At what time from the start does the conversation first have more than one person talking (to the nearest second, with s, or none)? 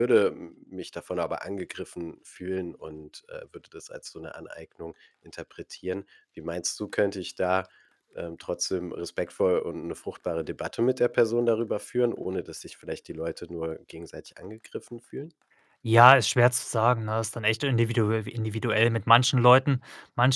none